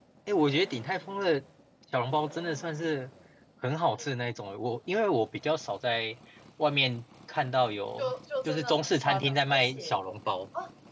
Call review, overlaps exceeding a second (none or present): present